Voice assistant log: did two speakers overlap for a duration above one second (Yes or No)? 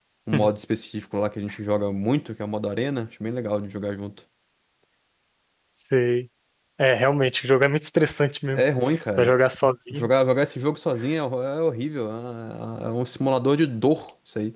No